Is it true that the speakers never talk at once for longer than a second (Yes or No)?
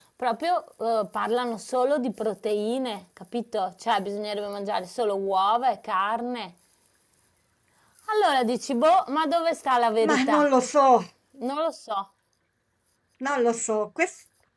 Yes